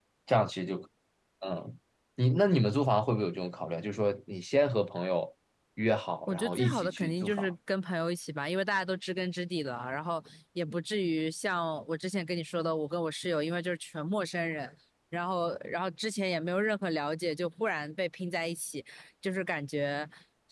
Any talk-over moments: Yes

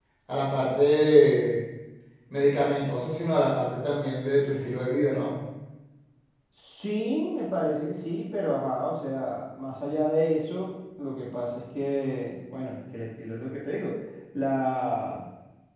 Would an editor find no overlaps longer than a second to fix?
Yes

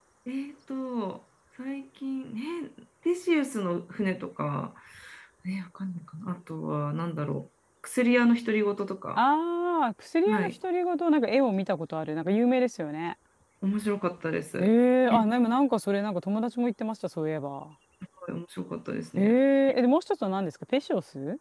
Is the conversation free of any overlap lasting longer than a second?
Yes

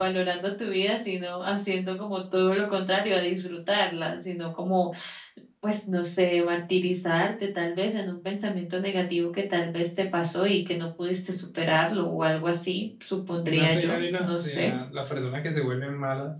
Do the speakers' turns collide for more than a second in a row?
Yes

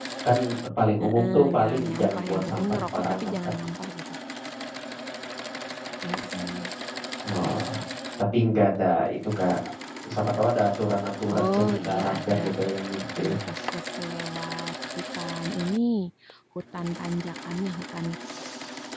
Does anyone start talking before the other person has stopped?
Yes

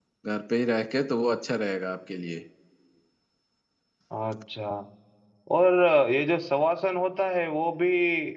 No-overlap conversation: Yes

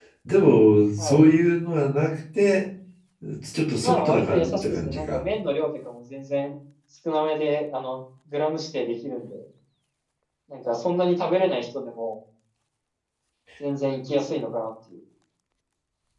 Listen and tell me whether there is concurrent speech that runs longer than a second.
Yes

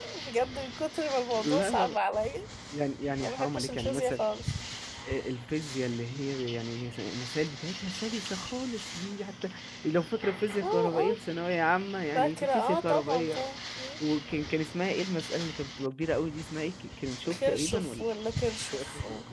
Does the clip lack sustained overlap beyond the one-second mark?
No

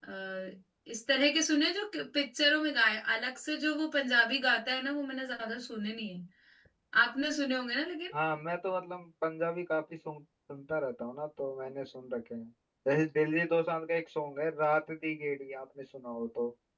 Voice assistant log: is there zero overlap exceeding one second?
Yes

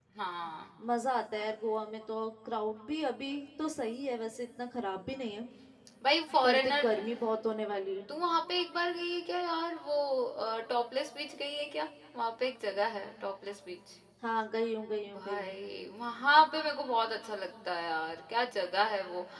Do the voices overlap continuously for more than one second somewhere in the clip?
No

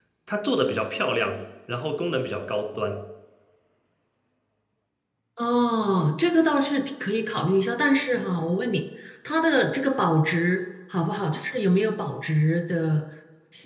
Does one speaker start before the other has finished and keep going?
No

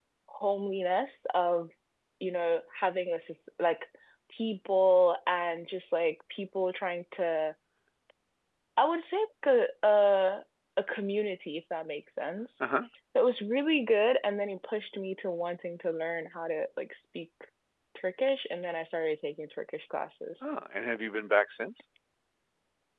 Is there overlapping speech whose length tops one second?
No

